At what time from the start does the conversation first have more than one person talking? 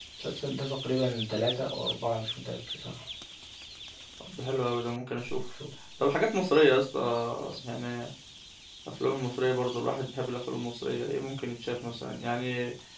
none

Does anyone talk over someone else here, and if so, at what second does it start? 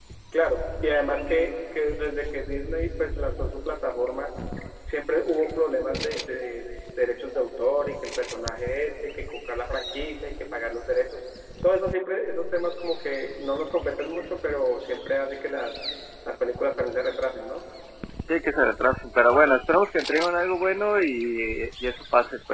none

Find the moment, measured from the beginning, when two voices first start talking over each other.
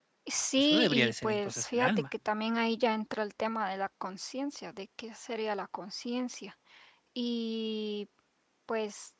0.6 s

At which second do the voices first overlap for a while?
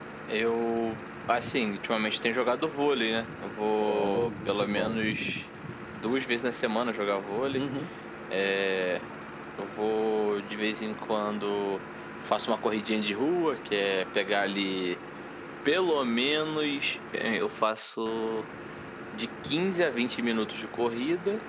3.8 s

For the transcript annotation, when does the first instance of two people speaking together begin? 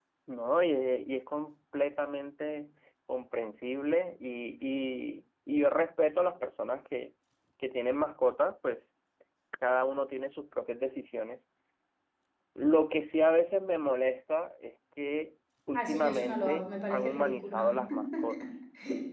15.7 s

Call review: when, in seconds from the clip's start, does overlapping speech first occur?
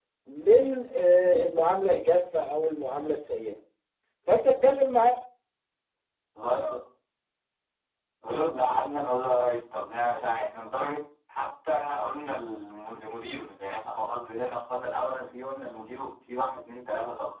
none

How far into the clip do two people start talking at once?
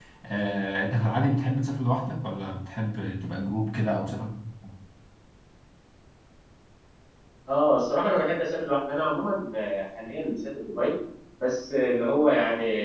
none

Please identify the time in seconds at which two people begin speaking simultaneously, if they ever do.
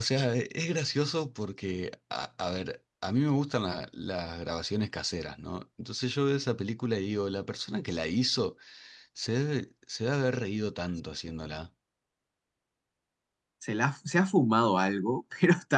none

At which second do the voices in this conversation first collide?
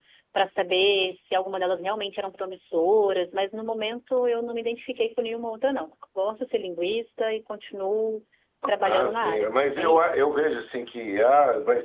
8.8 s

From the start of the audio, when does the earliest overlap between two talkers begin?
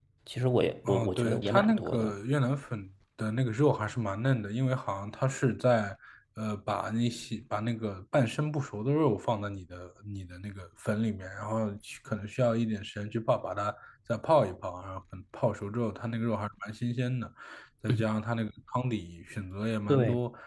0.9 s

